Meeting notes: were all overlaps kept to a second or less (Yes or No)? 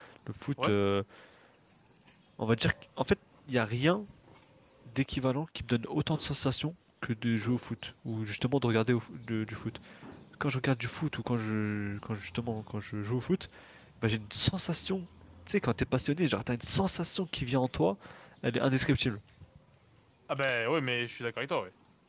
Yes